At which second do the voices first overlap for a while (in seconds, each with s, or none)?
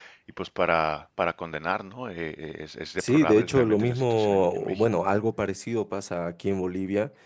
3.0 s